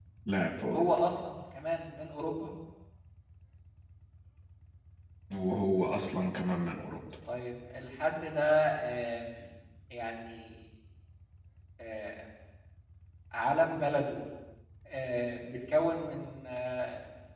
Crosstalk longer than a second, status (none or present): none